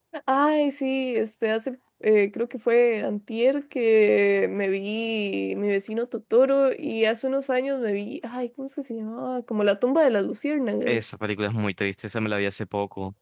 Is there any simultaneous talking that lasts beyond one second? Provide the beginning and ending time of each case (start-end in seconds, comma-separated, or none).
none